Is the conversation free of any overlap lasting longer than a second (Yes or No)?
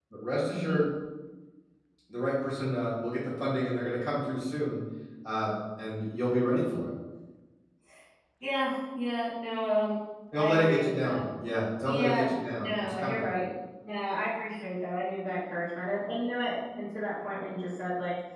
No